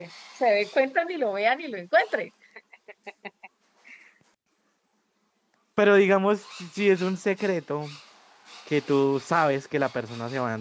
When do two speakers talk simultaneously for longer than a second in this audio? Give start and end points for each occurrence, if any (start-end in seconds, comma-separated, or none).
none